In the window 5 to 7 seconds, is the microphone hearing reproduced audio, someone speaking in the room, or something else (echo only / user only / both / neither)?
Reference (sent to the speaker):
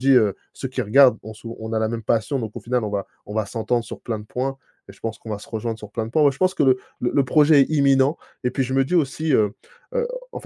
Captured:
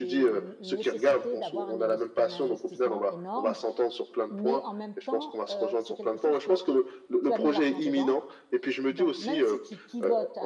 both